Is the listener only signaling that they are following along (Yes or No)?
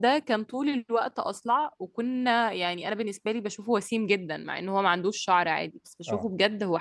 Yes